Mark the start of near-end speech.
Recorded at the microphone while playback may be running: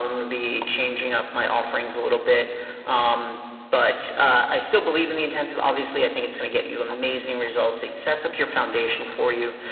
none

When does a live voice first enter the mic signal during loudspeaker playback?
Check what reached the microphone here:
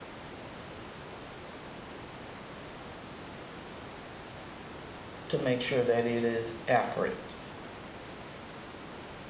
5.3 s

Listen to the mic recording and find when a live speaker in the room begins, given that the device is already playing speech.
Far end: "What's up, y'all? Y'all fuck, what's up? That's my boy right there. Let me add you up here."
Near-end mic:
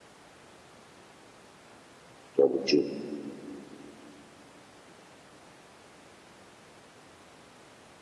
2.4 s

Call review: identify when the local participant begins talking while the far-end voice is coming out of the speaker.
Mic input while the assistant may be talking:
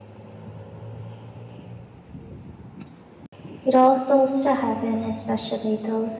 3.6 s

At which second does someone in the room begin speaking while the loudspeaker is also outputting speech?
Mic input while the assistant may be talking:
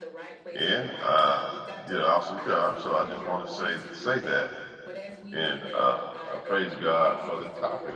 0.5 s

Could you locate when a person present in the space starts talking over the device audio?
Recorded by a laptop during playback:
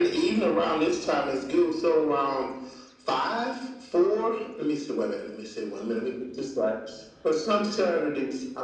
none

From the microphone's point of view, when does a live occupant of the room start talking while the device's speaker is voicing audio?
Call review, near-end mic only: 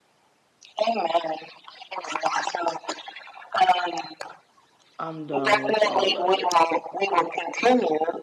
5.0 s

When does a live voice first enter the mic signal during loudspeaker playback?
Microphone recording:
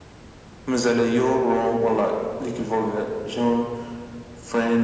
none

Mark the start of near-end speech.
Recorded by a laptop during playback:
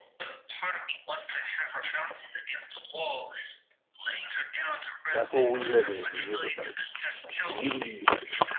5.1 s

